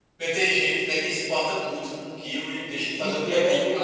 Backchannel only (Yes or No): No